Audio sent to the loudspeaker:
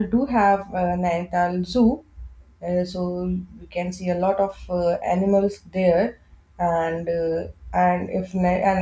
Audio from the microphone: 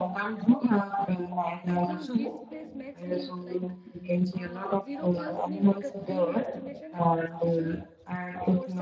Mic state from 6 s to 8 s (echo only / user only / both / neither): both